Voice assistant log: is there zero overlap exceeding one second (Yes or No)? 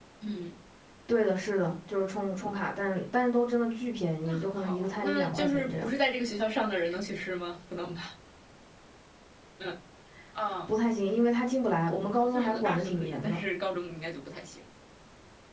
No